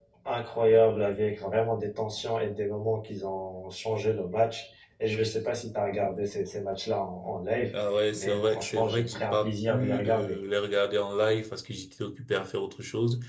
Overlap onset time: 8.1 s

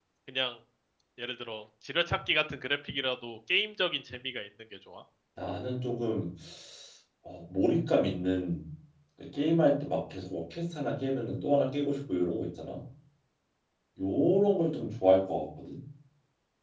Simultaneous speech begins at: none

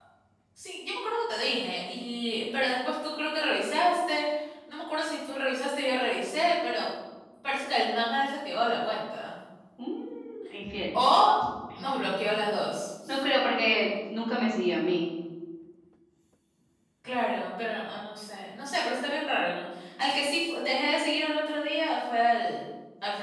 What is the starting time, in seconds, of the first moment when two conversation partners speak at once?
none

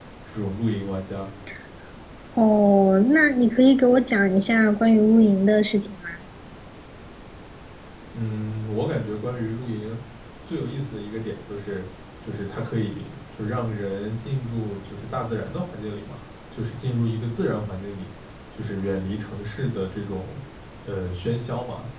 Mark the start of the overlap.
none

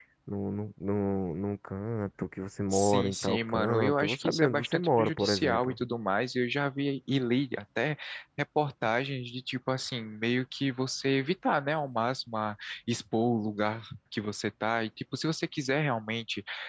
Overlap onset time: 2.7 s

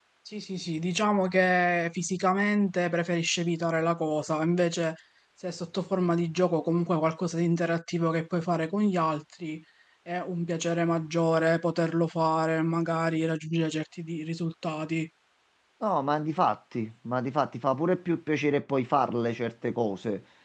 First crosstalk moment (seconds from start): none

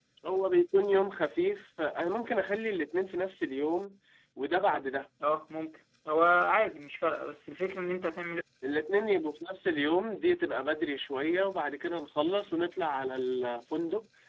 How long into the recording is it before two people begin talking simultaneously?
none

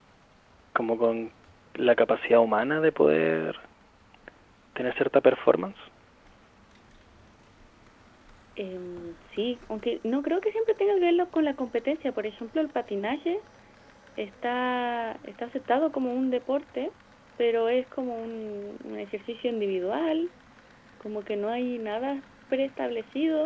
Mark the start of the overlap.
none

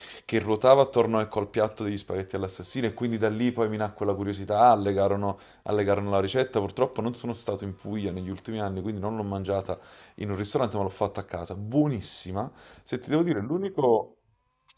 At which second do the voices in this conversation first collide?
none

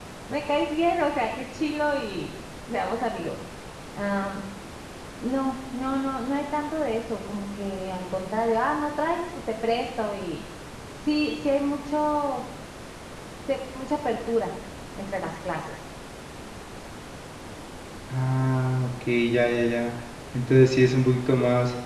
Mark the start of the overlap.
none

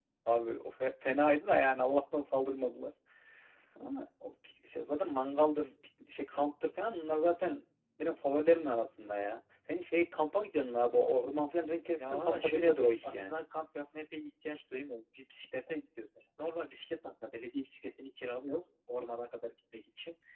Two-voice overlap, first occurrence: 12.0 s

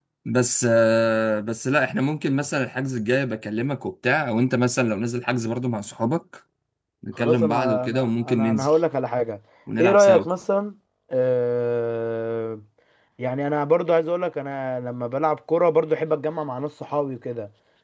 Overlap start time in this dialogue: 7.2 s

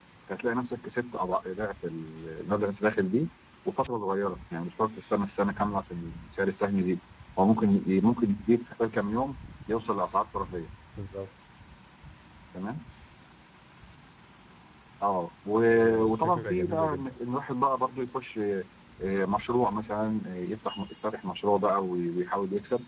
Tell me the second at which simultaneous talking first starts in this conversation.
15.7 s

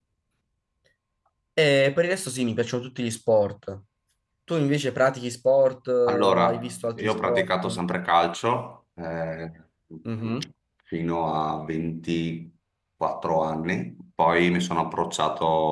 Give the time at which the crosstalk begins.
6.1 s

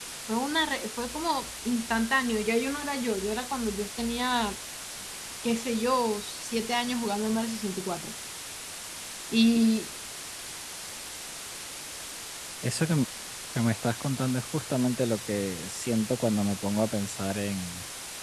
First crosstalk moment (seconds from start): none

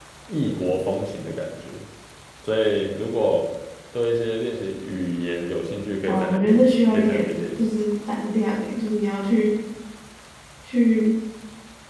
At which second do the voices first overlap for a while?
6.1 s

